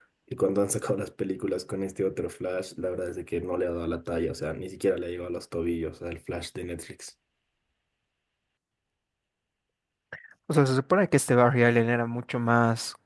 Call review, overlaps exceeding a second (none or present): none